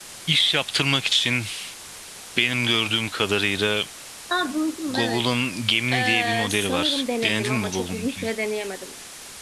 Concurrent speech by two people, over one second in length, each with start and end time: 5.9-8.3

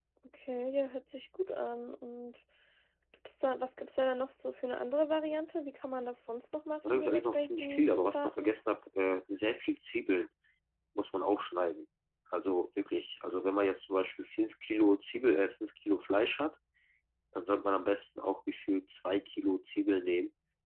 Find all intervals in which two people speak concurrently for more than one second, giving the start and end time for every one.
6.9-8.5

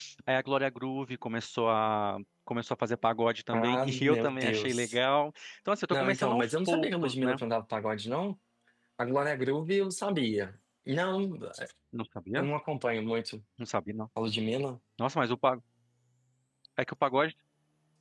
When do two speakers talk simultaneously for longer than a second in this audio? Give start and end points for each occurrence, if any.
3.5-5.0, 5.9-7.4

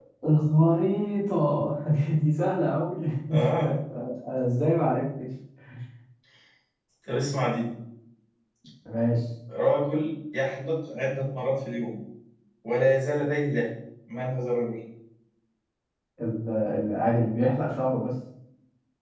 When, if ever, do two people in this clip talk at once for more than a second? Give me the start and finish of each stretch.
none

